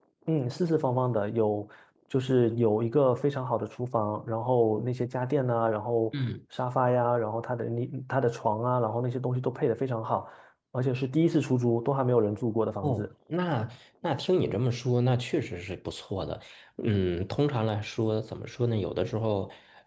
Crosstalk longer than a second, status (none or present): none